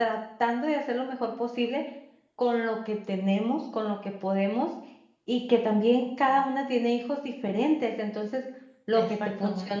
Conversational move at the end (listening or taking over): listening